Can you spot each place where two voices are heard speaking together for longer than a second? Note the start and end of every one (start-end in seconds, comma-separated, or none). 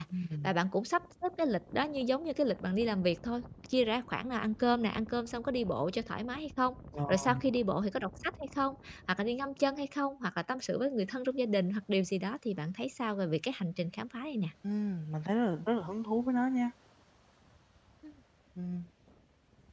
none